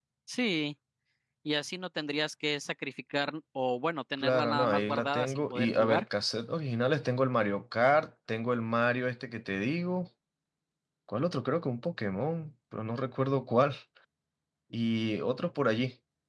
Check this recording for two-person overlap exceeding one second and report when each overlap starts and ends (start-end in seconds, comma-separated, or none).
4.2-6.0